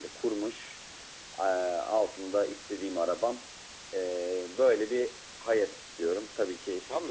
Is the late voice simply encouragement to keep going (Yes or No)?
No